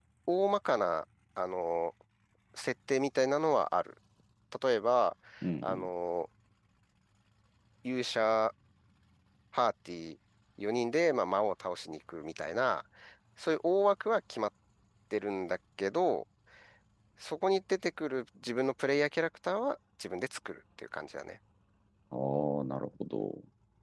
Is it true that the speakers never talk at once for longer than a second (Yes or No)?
Yes